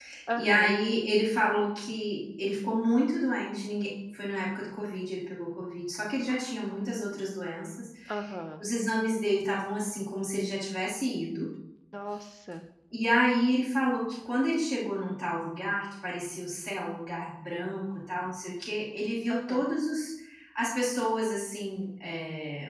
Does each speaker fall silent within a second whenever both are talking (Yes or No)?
Yes